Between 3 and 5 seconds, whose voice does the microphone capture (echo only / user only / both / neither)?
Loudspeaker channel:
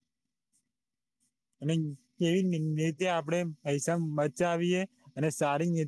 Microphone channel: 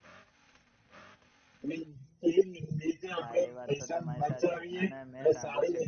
both